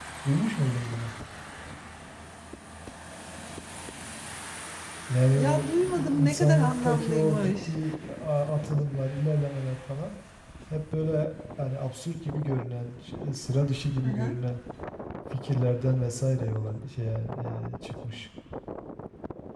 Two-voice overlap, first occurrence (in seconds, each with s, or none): 5.4 s